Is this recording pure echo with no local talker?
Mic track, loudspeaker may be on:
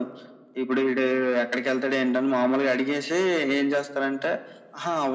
Yes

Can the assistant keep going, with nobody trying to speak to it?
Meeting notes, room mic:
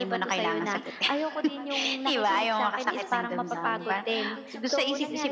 No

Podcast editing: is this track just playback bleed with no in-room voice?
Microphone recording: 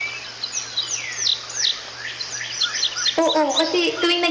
No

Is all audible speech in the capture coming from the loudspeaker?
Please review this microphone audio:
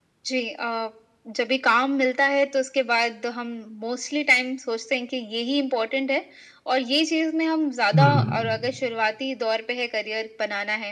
No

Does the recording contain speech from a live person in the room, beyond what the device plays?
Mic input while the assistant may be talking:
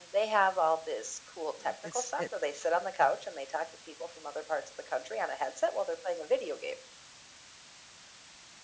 Yes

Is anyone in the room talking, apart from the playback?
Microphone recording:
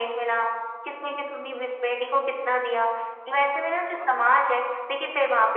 Yes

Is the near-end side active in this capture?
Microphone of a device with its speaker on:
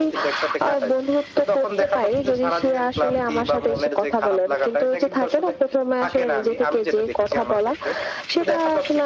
No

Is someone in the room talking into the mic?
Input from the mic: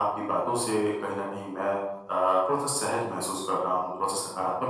No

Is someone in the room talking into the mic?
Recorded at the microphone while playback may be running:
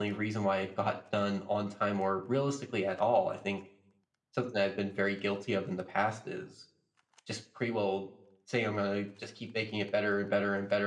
Yes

